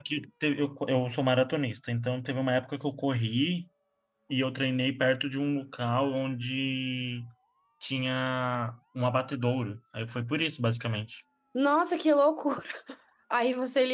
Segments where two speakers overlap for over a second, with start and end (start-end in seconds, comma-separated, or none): none